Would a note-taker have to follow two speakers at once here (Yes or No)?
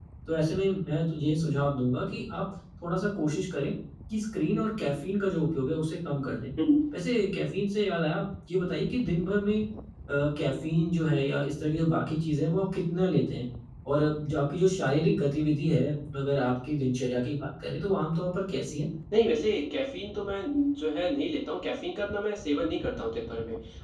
No